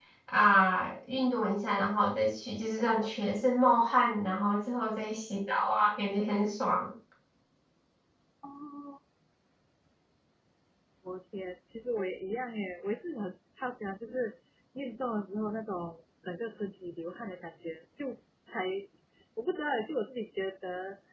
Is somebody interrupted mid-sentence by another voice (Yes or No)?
No